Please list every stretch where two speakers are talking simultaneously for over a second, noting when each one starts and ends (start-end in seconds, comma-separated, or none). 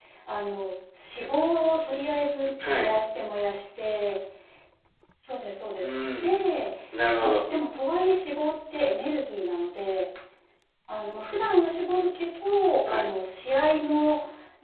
none